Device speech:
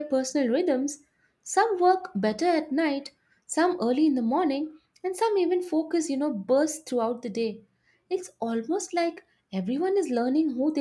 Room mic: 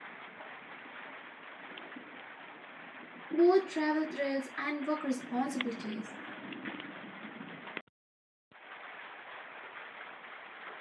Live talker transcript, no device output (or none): both travel thrills and work responsibilities.